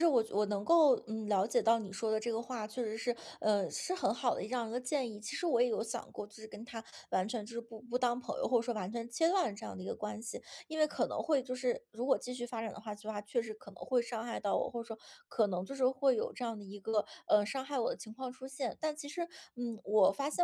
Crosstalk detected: No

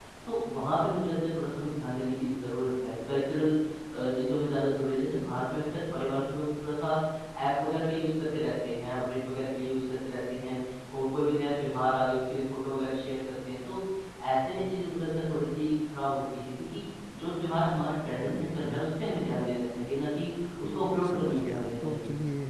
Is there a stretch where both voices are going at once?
Yes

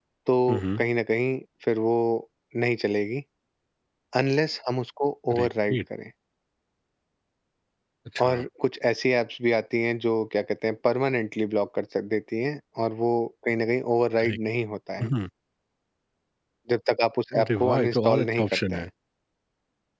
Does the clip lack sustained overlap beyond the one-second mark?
No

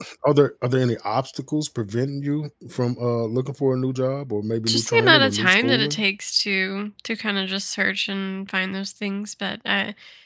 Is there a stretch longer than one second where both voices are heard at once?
Yes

